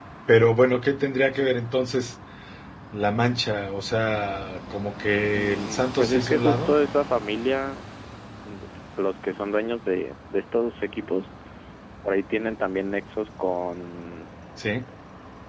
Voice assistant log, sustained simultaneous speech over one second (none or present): present